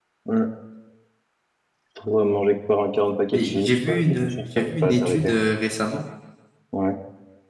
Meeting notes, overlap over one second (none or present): present